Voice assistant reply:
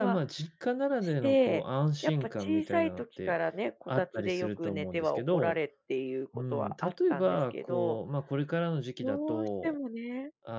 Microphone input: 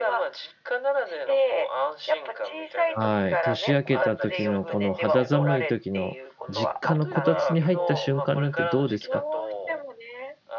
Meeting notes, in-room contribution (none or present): present